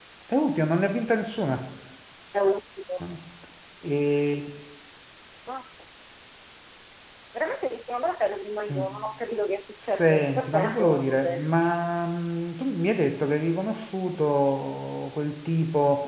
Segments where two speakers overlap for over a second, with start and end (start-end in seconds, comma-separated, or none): 9.8-11.5